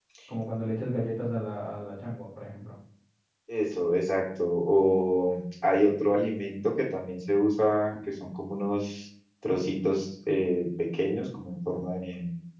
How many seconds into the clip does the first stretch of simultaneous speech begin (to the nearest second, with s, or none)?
none